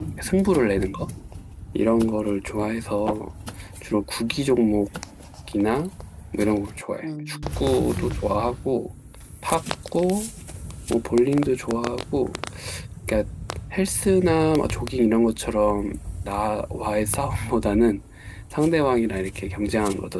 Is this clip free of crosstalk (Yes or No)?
No